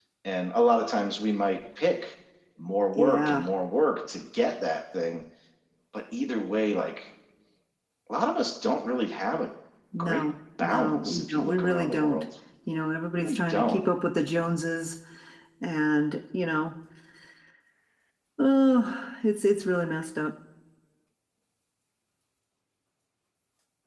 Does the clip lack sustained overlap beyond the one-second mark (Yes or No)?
No